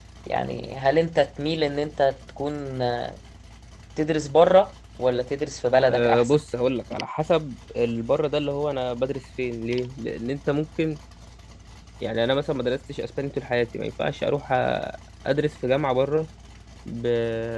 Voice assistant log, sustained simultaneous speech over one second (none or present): none